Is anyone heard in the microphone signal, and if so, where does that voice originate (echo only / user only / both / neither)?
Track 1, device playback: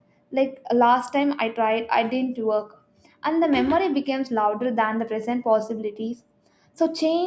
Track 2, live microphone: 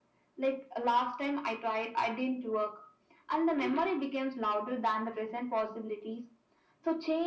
echo only